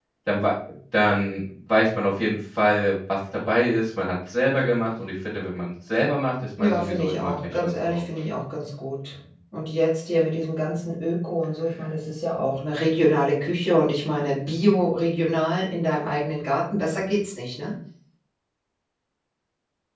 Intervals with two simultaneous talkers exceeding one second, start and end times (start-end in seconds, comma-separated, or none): 6.6-8.0